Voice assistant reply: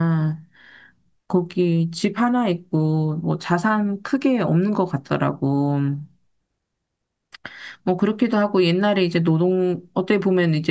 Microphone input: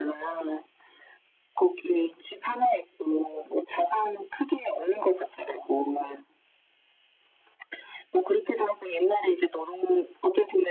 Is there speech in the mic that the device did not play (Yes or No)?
No